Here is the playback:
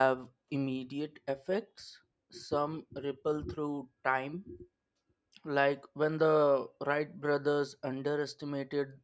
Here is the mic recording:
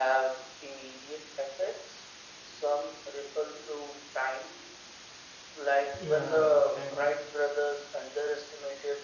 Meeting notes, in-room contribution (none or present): present